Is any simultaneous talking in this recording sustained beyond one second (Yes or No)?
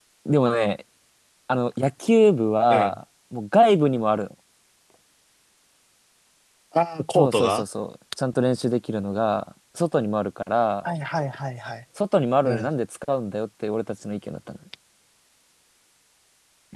No